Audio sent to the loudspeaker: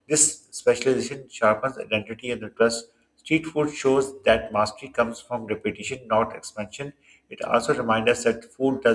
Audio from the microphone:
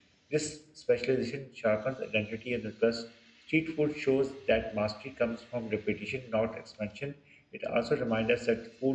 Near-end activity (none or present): none